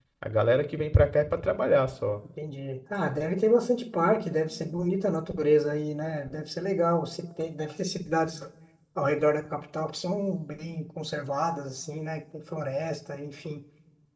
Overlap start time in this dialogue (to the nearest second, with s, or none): none